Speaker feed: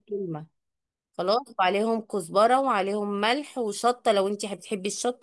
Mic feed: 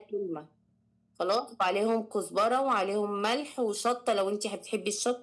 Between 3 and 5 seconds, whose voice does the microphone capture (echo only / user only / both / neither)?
echo only